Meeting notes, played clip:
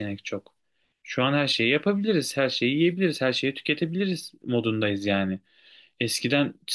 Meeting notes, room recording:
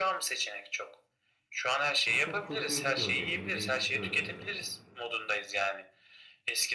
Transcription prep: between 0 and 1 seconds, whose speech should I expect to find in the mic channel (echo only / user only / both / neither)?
echo only